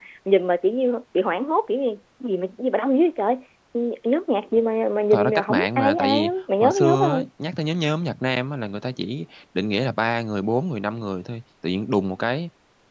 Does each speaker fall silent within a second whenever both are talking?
No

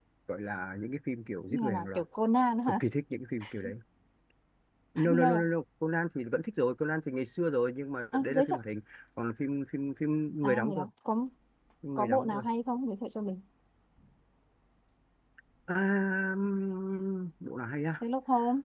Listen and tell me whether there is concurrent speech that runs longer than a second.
No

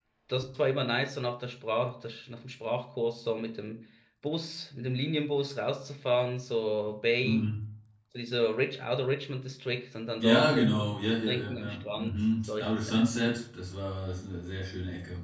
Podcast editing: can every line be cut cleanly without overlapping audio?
No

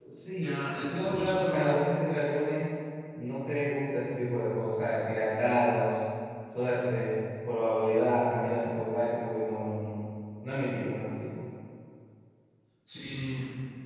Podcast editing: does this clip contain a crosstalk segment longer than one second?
Yes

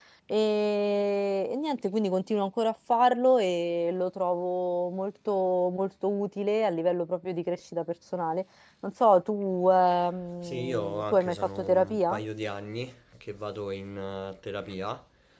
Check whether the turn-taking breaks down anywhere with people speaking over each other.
Yes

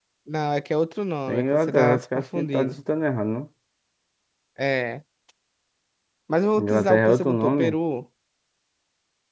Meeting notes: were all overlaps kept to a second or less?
No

